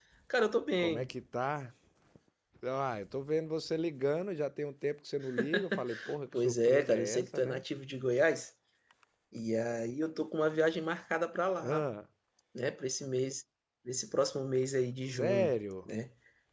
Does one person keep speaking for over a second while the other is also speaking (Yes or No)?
Yes